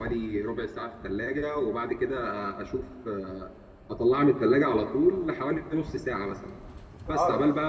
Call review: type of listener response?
listening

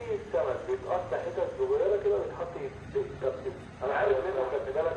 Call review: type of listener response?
listening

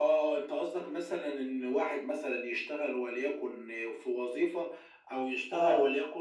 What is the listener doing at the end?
listening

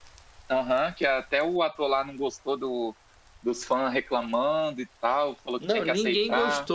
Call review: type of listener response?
taking over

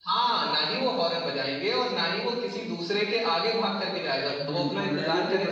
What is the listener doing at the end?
taking over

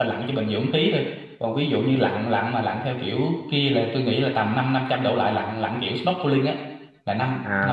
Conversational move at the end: taking over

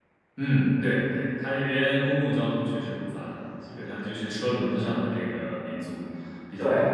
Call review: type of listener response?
taking over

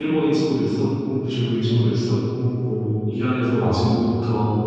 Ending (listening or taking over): listening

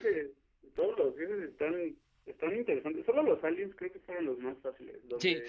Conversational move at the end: taking over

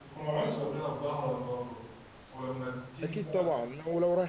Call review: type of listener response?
taking over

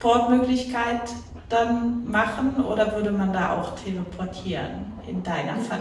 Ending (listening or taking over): taking over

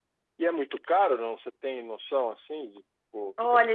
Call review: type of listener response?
taking over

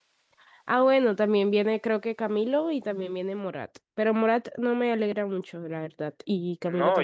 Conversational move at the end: taking over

